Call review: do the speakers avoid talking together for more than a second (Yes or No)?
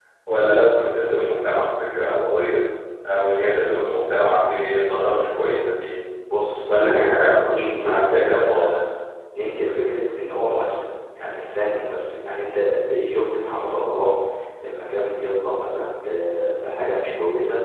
No